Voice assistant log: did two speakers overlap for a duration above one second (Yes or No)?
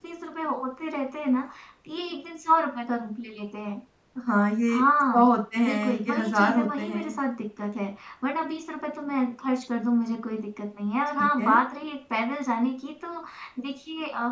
Yes